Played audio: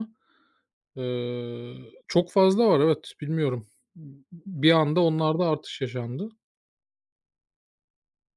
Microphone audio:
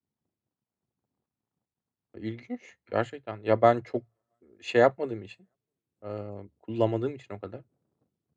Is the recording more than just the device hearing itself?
Yes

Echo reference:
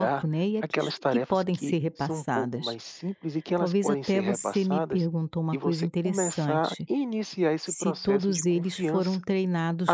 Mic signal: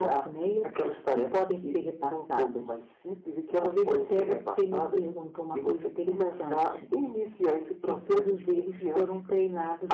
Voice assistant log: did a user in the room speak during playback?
No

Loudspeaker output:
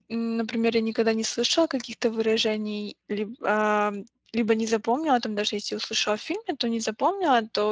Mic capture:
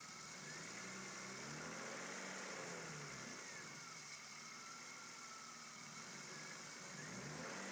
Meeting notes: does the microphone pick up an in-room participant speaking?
No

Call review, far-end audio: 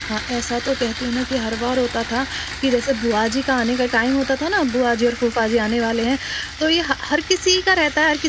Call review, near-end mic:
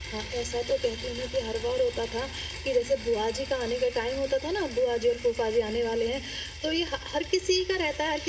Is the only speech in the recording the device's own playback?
Yes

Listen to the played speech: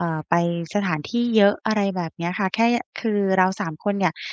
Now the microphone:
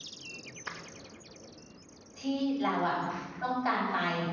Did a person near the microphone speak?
Yes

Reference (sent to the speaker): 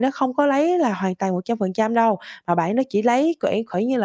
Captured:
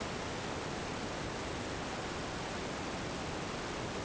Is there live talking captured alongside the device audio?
No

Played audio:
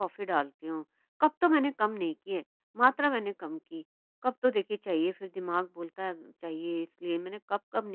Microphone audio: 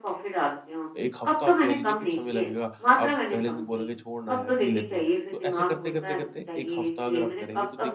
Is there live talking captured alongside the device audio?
Yes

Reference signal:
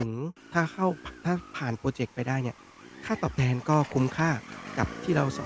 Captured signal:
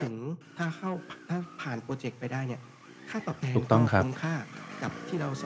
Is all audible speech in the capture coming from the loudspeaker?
No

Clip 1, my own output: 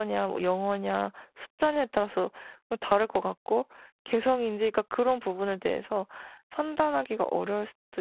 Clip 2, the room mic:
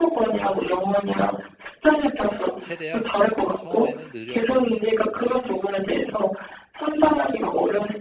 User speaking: Yes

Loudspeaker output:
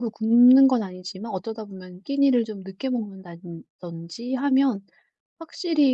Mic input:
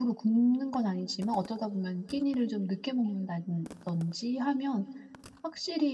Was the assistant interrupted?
No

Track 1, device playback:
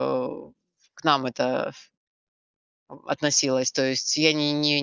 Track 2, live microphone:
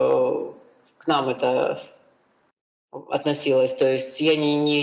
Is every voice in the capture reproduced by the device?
Yes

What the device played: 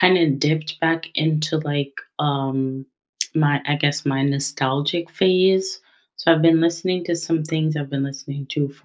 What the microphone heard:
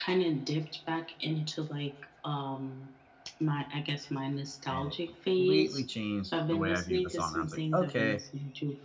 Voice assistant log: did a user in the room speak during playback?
Yes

